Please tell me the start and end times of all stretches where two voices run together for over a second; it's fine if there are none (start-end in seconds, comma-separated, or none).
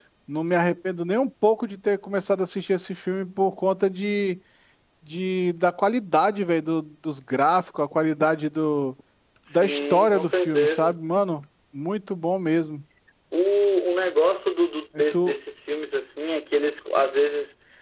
9.5-11.0